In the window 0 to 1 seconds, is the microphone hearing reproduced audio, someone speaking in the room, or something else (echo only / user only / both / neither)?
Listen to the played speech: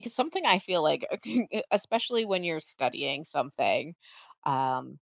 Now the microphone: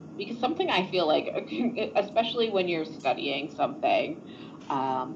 echo only